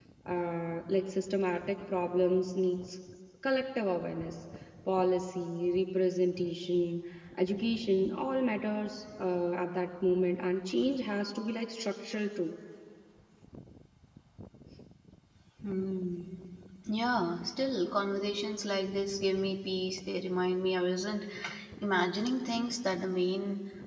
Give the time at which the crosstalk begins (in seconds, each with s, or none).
none